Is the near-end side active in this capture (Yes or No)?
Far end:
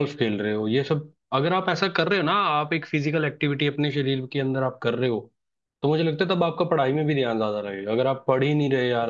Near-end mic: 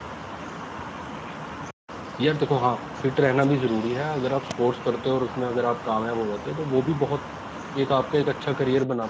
Yes